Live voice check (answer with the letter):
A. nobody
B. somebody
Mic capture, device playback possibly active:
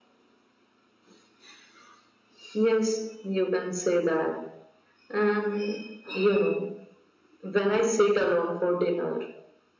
A